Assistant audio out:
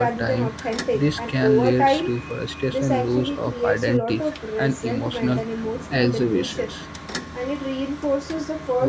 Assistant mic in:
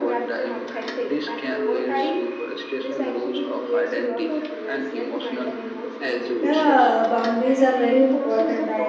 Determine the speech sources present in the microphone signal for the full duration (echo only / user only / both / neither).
both